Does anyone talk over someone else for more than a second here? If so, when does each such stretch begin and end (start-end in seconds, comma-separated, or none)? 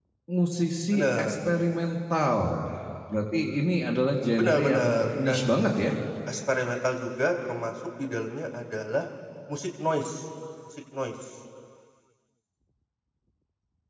4.4-5.6